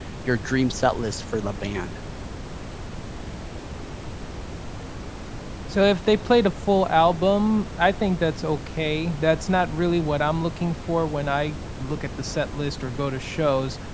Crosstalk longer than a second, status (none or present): none